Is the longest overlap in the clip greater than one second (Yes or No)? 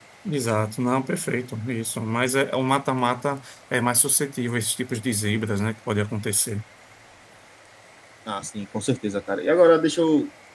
No